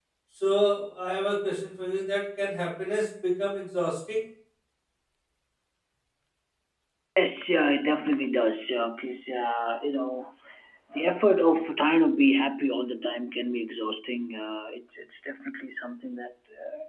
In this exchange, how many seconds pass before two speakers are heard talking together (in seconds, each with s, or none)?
none